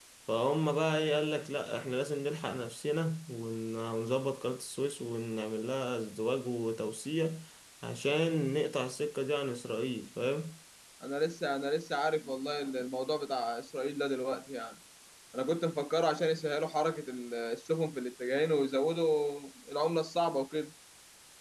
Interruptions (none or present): none